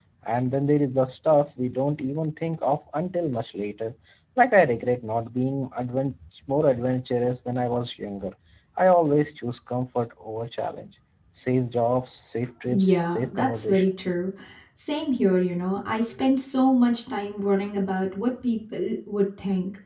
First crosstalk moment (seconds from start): 12.7 s

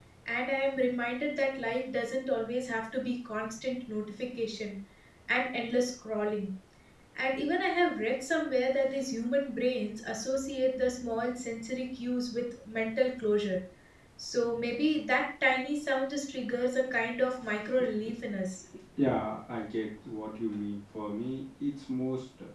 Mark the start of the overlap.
none

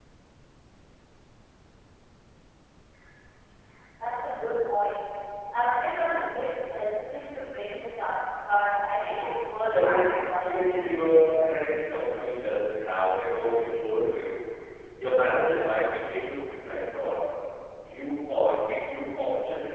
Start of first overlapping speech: 9.7 s

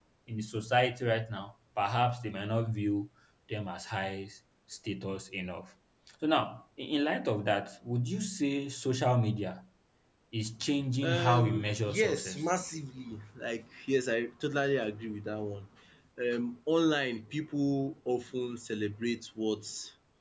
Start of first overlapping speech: 11.0 s

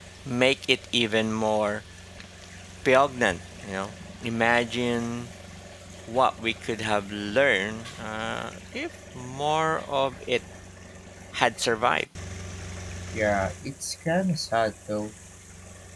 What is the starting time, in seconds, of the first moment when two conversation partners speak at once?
none

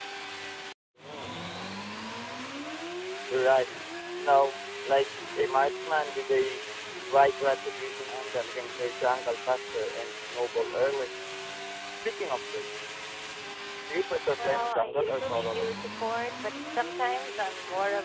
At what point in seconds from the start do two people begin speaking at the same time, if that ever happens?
14.4 s

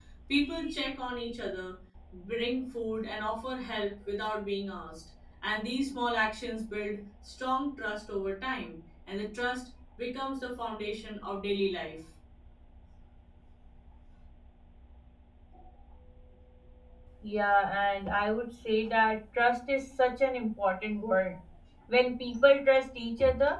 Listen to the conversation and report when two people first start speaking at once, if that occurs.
none

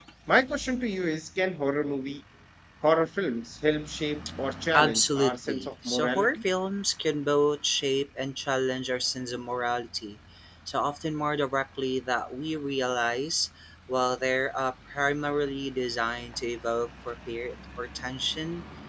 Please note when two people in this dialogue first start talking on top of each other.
4.7 s

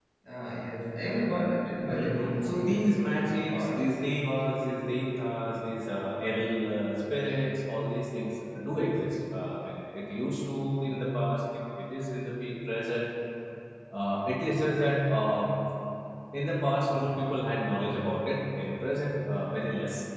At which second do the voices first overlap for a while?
1.8 s

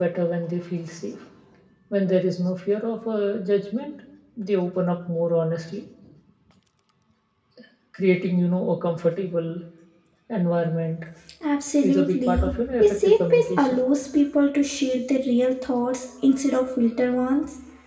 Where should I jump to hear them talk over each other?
11.8 s

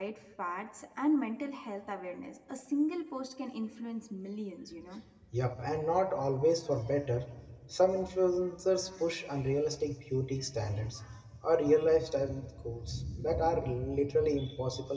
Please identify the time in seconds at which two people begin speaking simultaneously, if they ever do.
none

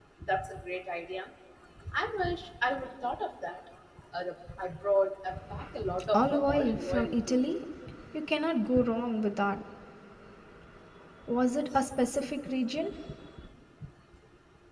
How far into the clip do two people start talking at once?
6.1 s

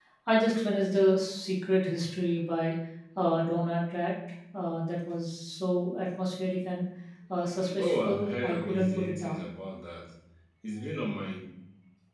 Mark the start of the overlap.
7.8 s

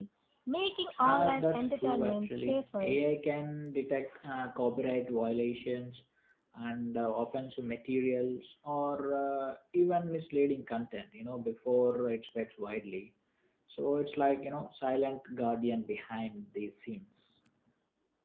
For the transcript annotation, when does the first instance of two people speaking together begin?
1.0 s

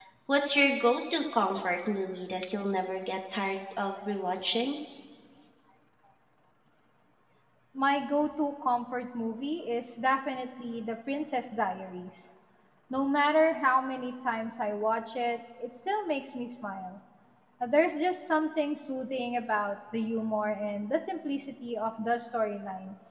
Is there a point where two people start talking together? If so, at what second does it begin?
none

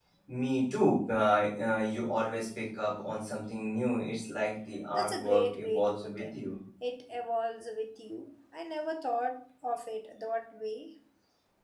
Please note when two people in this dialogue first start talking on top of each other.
4.9 s

